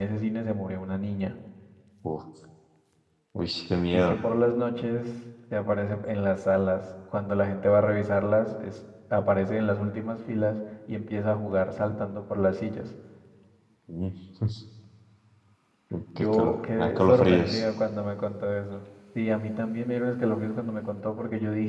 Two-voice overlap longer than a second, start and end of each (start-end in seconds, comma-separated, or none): 16.2-17.6